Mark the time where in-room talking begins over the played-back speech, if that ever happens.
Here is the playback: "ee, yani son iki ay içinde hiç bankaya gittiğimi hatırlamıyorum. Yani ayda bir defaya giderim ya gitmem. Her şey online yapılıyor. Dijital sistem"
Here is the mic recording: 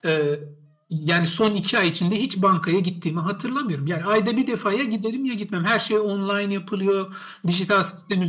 none

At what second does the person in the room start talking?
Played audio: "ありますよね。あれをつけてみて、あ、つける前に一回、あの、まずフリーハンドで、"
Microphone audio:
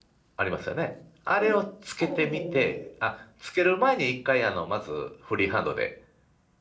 1 s

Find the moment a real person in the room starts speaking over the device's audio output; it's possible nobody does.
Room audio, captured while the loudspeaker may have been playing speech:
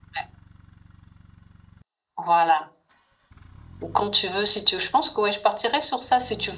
none

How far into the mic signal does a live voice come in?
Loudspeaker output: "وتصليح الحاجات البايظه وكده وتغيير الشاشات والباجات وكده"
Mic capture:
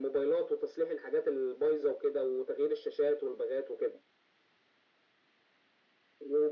none

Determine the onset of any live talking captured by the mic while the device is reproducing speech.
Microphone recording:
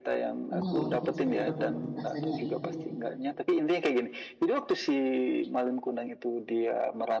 1 s

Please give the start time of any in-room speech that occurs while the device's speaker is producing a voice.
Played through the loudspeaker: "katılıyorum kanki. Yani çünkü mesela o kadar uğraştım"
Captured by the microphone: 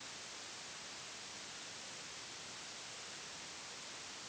none

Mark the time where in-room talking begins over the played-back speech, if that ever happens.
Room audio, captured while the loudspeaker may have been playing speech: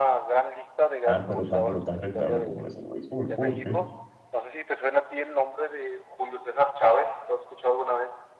1 s

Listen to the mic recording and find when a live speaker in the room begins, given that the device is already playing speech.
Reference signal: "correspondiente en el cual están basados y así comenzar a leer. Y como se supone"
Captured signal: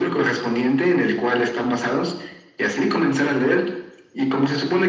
none

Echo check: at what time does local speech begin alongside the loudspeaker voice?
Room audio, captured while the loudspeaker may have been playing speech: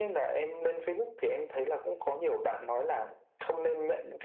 none

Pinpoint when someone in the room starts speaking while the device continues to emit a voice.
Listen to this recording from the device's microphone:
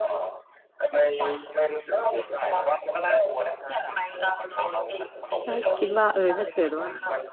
5 s

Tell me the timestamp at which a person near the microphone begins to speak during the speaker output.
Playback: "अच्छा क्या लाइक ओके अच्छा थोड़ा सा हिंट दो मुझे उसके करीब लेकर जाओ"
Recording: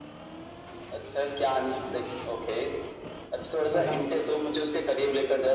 4 s

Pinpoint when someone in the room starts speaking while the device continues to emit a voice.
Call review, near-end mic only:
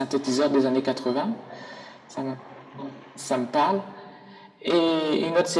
none

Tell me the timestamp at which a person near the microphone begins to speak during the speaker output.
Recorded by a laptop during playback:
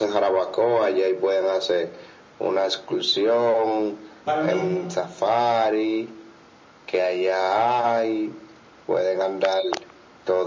4 s

